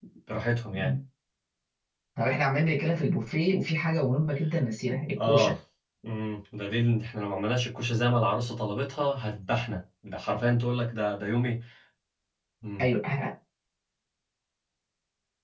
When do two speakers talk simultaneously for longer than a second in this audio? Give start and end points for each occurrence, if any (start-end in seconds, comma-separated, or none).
none